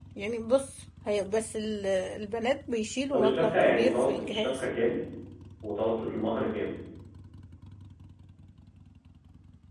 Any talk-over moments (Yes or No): Yes